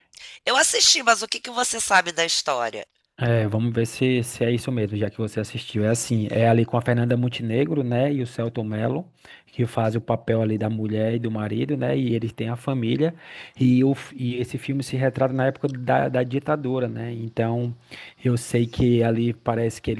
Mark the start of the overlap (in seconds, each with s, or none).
none